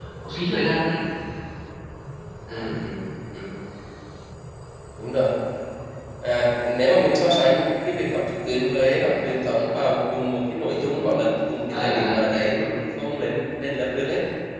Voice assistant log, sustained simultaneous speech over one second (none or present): none